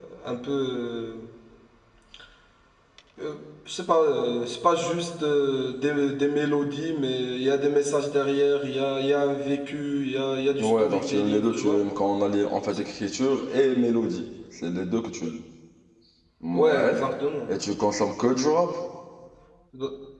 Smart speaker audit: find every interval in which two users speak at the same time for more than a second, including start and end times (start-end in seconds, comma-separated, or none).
10.6-11.8